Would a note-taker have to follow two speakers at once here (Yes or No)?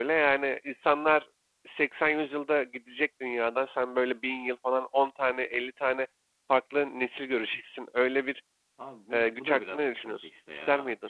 Yes